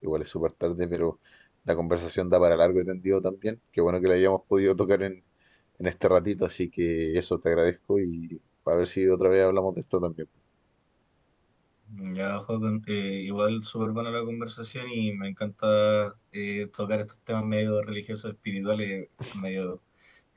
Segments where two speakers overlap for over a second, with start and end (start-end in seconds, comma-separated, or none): none